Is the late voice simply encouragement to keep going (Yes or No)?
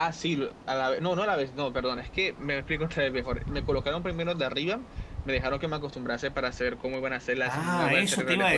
No